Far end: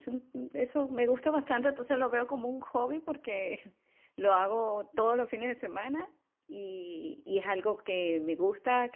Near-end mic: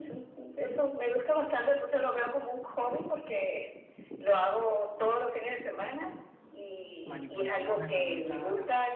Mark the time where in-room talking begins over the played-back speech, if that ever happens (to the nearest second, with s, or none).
7 s